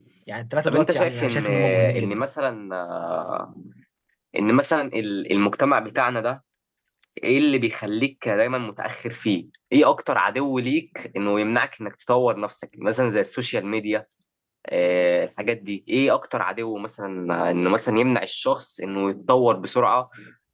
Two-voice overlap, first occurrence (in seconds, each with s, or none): 0.6 s